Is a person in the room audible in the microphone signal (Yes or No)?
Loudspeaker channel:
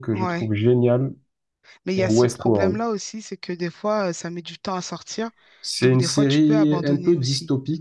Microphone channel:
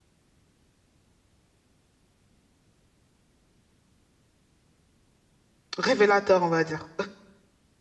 Yes